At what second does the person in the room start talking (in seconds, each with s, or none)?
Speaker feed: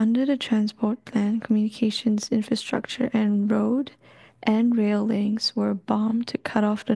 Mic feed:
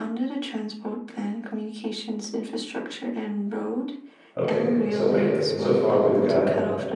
4.4 s